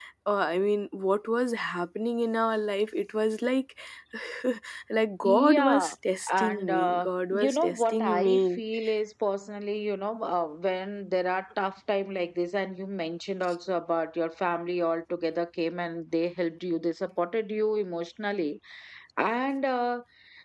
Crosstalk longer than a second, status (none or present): present